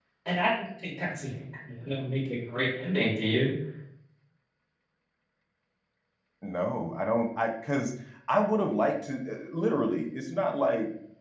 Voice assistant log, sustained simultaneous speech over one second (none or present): none